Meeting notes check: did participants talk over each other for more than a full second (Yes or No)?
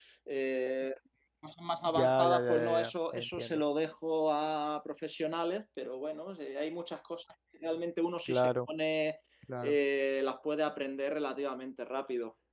Yes